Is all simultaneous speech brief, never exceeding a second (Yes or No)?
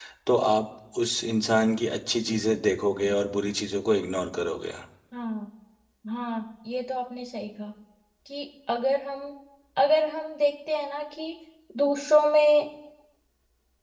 Yes